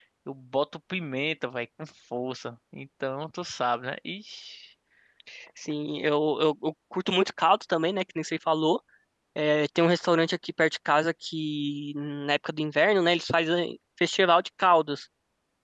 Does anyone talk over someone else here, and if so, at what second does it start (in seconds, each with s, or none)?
none